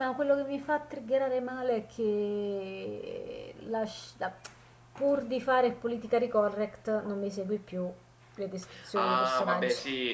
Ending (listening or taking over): taking over